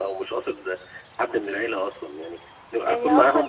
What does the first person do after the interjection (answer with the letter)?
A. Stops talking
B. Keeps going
A